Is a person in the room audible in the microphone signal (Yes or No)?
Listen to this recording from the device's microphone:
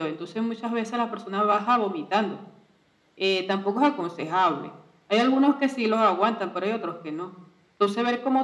No